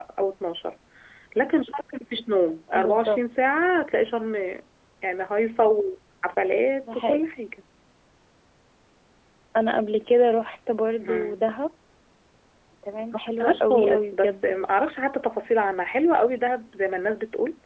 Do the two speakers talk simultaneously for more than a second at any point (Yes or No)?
Yes